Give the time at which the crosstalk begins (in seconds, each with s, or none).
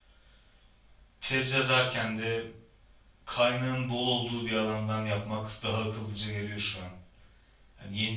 none